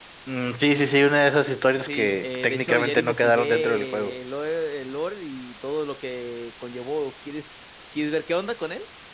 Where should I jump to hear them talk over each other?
1.9 s

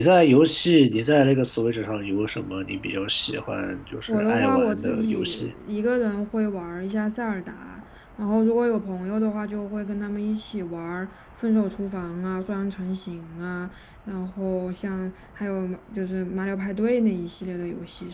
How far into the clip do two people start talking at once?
4.1 s

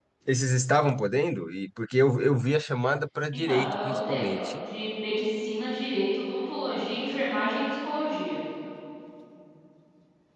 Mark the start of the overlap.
3.3 s

